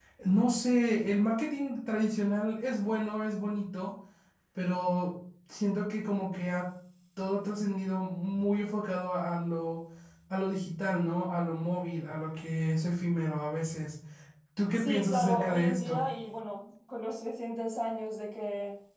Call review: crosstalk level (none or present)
present